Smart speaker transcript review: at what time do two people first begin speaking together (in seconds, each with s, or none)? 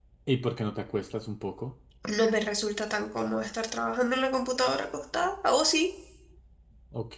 none